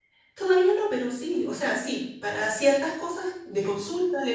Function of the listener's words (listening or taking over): listening